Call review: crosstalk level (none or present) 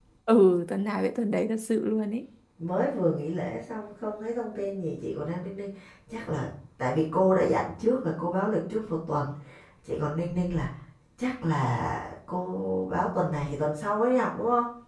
none